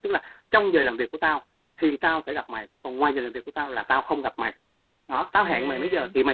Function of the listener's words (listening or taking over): listening